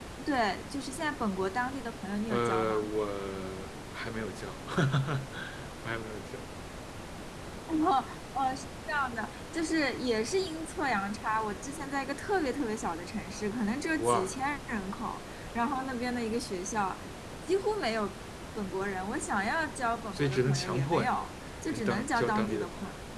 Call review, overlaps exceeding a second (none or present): present